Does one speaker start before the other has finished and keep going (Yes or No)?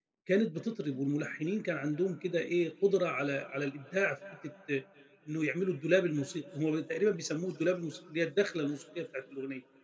No